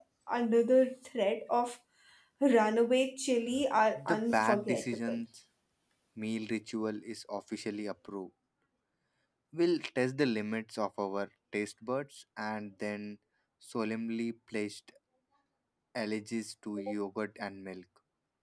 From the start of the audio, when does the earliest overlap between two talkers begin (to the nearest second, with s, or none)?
4 s